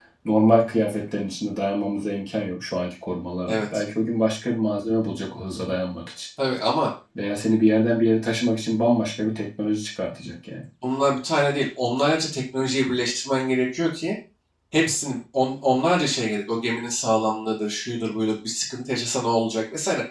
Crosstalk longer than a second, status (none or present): none